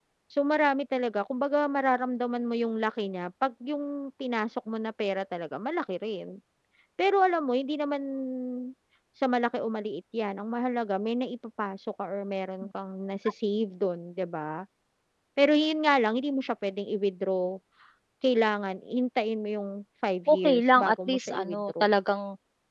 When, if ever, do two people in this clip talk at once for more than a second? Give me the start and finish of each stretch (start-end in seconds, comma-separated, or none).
20.3-21.9